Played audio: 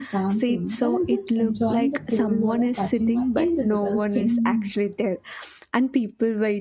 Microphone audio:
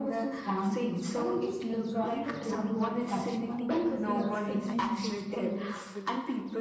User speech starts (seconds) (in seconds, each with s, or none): 3.2 s